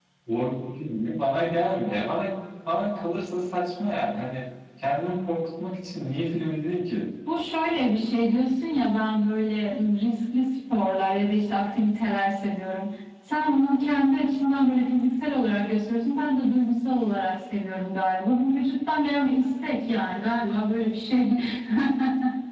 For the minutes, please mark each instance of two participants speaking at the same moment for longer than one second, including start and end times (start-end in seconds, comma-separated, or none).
none